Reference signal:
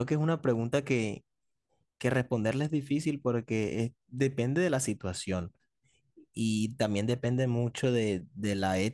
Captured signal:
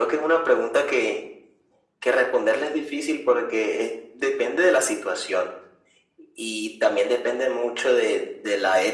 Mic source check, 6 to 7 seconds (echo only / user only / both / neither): echo only